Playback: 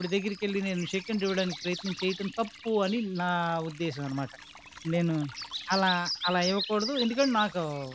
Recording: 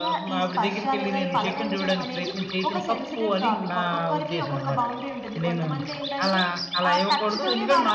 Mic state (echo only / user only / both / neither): both